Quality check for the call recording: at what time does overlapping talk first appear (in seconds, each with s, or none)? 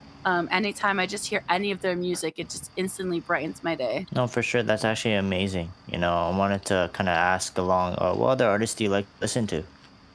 none